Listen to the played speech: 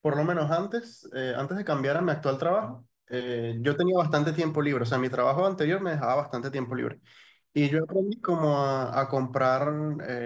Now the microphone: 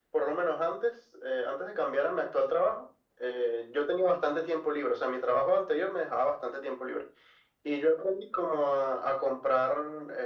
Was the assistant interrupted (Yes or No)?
No